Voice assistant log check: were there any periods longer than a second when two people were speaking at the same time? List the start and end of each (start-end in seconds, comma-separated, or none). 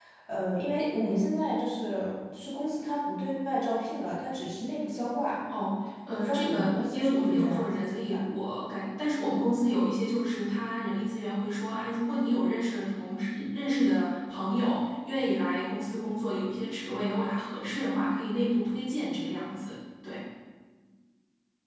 6.1-8.2